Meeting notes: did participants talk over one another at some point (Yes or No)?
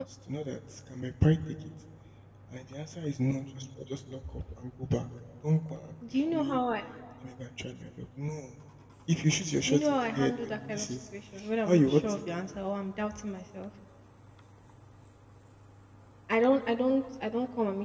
Yes